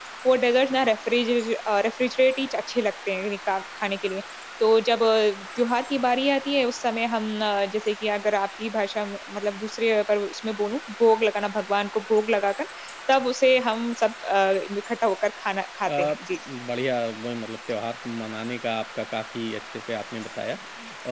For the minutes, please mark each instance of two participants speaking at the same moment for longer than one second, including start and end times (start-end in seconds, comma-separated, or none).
none